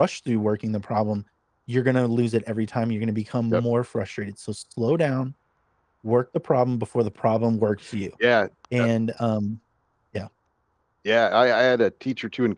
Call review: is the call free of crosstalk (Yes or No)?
Yes